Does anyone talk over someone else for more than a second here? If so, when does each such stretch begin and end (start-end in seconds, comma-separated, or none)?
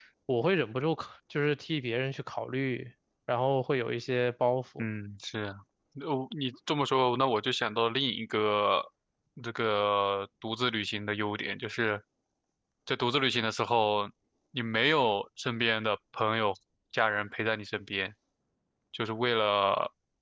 none